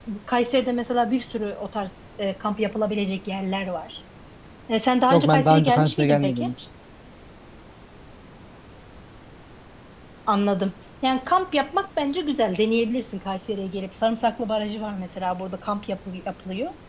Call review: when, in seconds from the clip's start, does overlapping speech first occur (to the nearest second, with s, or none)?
5 s